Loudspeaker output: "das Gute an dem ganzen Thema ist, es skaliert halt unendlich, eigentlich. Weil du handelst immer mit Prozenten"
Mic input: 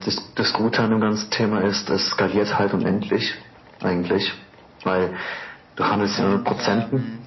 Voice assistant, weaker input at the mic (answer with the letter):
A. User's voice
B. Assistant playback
A